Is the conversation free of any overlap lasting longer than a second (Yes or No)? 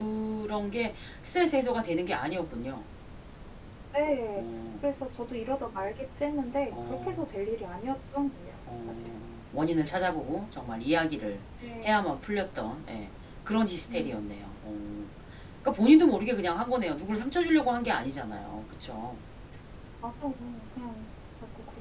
Yes